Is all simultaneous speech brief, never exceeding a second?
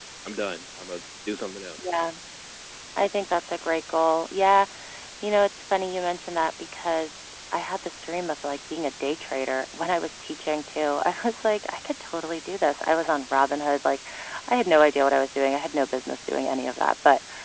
Yes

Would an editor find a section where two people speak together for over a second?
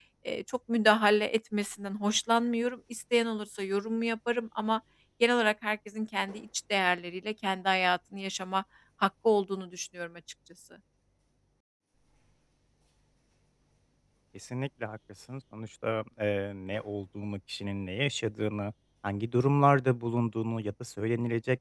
No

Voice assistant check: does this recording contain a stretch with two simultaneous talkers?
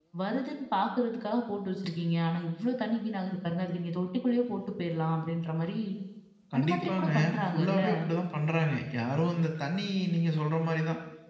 Yes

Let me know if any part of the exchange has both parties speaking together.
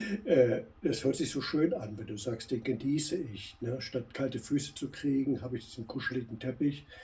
No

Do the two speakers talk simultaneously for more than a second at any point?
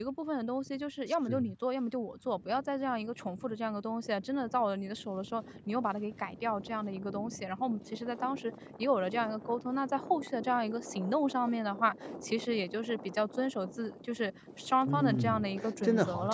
Yes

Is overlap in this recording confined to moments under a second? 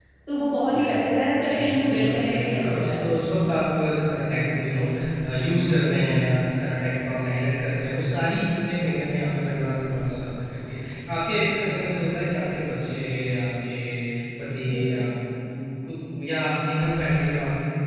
No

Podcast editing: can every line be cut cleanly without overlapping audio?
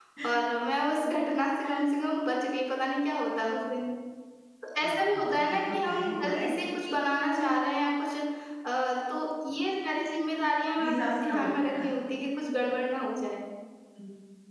No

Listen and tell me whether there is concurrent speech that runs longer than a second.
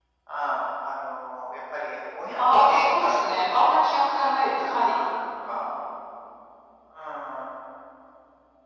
Yes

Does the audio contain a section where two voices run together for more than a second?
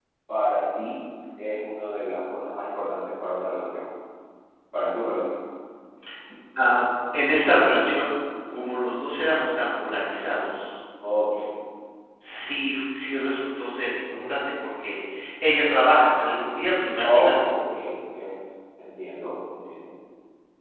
No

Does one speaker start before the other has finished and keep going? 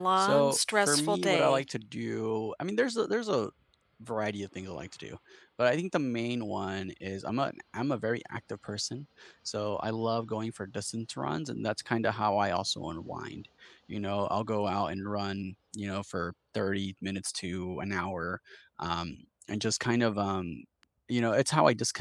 Yes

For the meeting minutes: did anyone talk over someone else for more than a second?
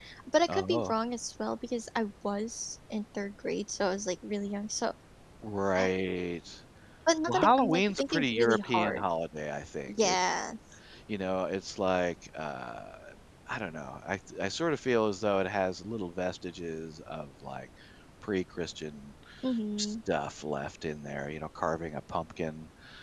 Yes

